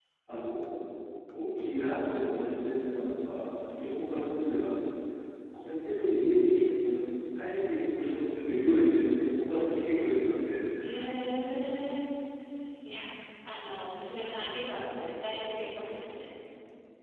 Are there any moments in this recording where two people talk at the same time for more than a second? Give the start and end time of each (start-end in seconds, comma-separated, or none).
none